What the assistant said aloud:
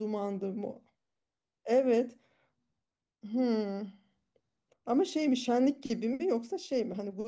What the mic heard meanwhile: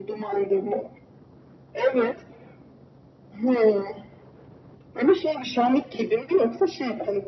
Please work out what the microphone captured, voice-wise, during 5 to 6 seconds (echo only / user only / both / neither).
echo only